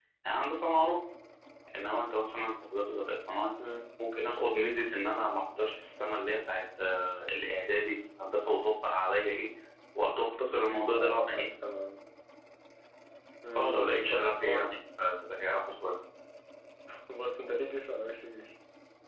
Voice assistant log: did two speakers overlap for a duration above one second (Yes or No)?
Yes